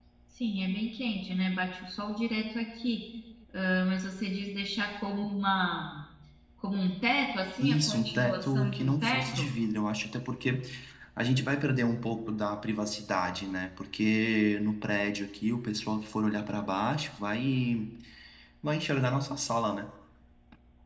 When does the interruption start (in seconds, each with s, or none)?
7.6 s